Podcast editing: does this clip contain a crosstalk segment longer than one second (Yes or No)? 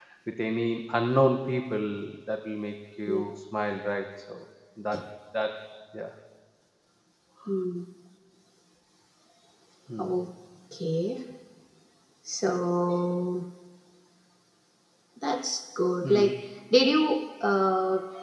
No